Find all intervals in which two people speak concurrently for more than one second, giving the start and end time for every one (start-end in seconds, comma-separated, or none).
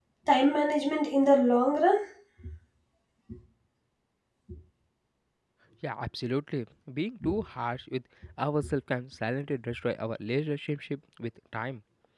none